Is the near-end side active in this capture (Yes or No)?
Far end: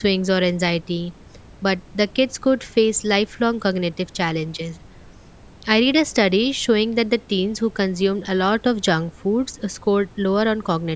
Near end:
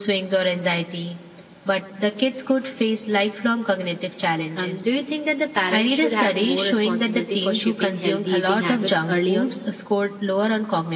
Yes